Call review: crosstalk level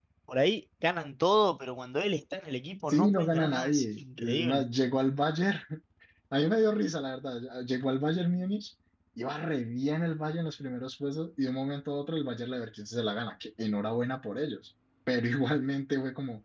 present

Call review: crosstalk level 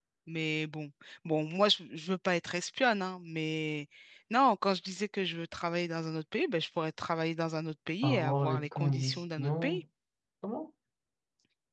present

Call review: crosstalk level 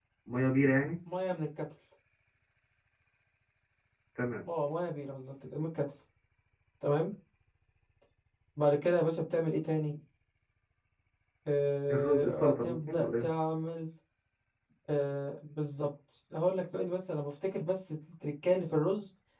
present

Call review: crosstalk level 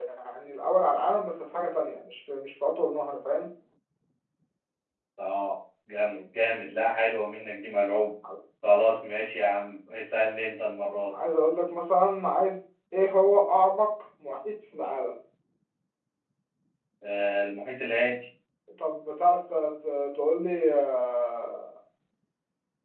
none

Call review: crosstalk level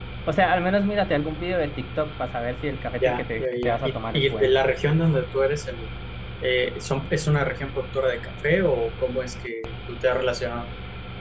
present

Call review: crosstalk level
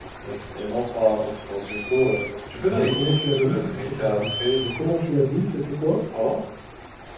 present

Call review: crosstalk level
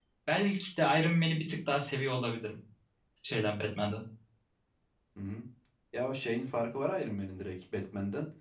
none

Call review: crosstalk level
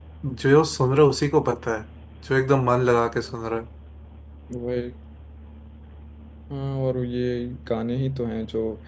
none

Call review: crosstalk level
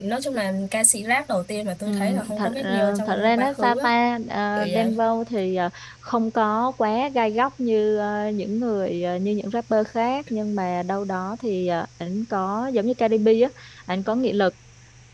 present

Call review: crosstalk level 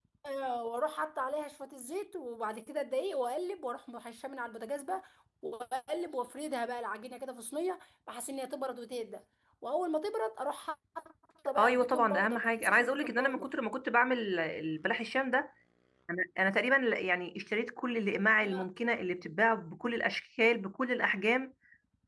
present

